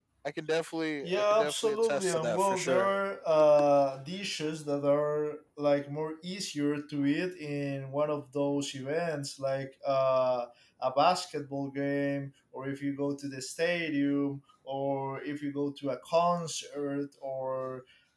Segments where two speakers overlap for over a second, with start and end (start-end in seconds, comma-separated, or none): 1.0-2.9